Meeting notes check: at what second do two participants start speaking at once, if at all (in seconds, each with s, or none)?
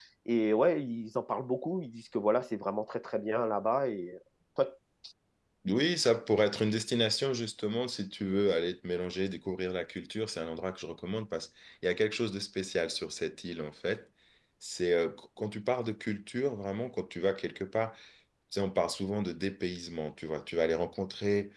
none